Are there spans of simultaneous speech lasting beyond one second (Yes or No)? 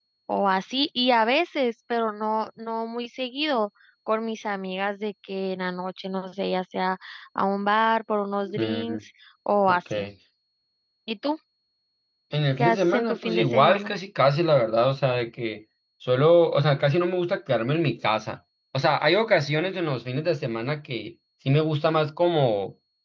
Yes